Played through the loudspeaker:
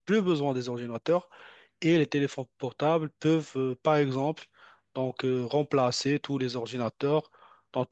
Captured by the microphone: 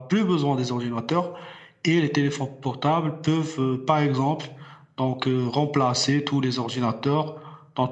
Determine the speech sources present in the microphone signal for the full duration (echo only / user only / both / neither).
echo only